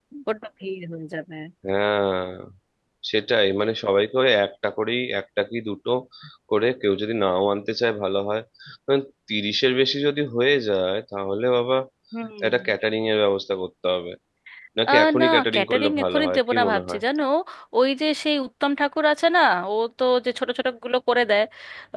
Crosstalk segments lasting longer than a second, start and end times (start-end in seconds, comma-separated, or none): 14.9-17.0